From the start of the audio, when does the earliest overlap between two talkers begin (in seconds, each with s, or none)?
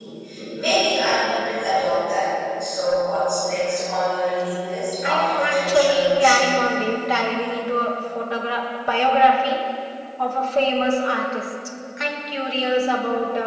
5.0 s